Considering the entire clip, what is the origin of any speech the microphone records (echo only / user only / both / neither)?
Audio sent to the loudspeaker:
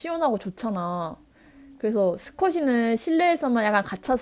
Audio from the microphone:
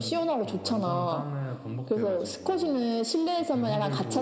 both